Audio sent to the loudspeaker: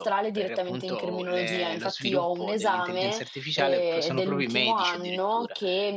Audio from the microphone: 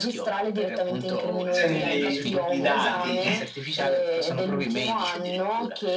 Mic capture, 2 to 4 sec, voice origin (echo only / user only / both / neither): both